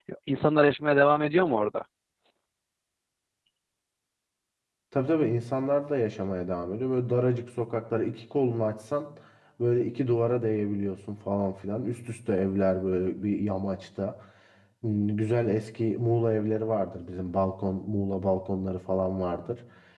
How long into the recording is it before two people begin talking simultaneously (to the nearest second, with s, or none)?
none